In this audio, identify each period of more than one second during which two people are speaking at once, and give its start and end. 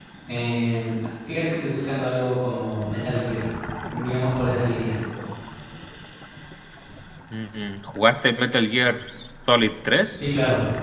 none

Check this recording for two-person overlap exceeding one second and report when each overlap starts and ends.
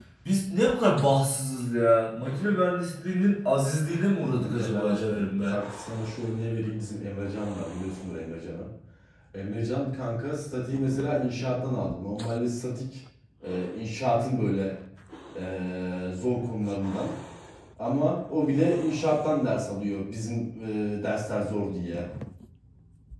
4.3-5.6

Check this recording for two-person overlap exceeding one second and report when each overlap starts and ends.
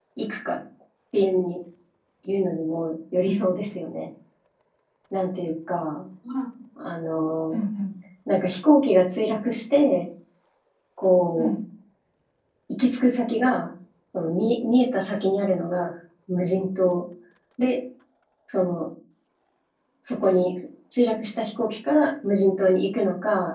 none

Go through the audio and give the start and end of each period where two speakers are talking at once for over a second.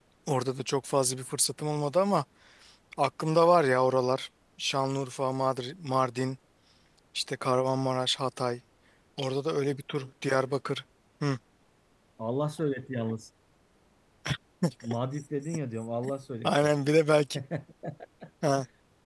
none

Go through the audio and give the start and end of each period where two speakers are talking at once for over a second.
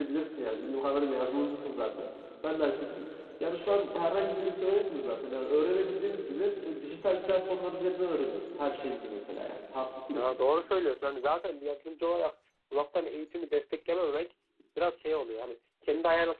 none

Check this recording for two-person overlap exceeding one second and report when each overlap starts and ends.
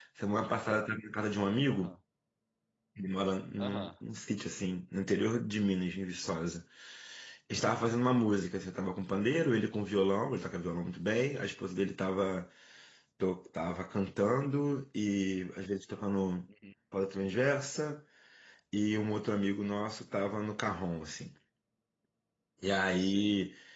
none

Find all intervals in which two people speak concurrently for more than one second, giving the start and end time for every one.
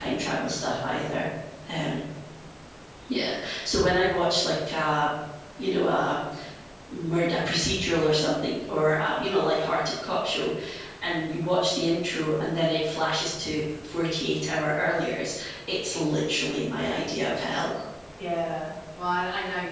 none

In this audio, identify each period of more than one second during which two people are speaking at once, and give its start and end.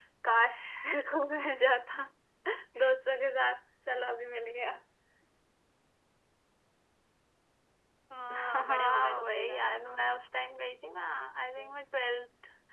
8.3-9.7

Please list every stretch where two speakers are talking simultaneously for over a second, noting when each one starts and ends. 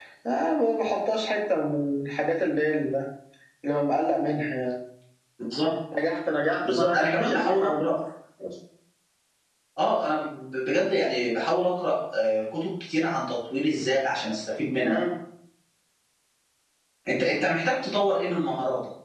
6.7-7.9

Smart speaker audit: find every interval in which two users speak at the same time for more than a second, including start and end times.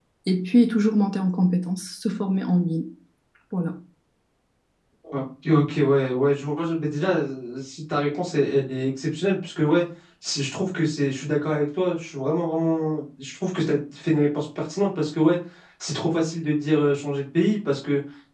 none

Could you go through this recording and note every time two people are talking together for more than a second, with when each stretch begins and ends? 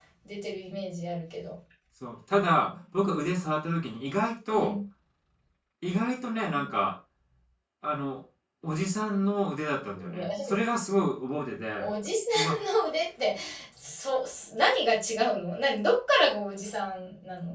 none

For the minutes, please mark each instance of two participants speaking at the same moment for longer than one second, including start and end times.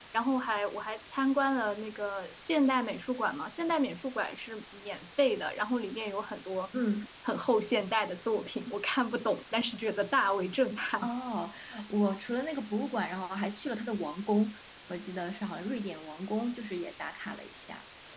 none

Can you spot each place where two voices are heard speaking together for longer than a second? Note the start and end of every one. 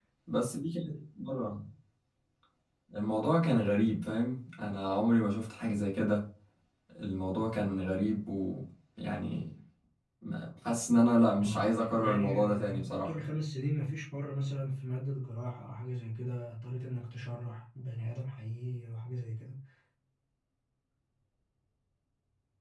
11.4-13.1

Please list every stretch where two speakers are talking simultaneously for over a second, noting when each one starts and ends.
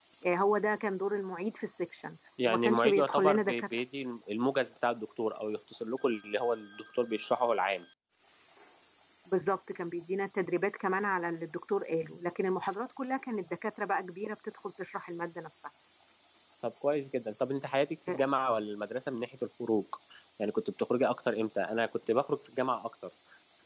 2.4-3.8

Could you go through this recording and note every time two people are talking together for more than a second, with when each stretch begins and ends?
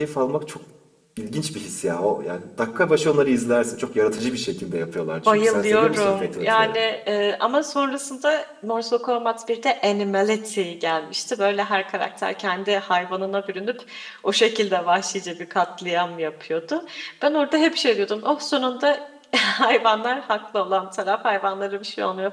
5.2-6.8

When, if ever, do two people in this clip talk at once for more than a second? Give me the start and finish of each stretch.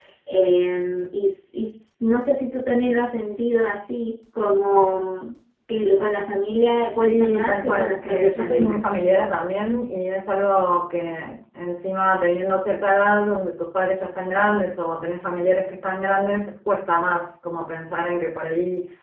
7.1-8.9

